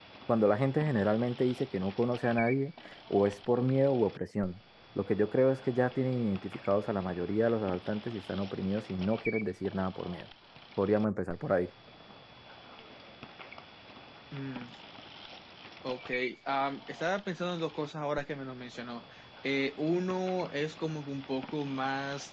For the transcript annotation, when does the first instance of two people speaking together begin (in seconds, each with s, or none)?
none